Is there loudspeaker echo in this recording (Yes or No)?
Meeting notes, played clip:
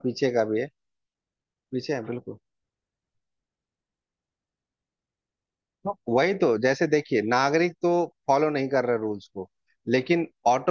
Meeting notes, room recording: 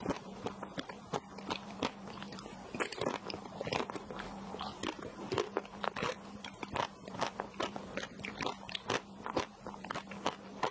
No